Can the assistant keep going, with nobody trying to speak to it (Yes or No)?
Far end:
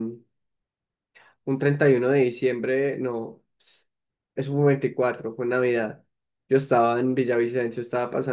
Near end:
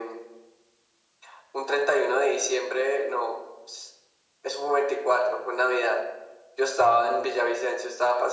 Yes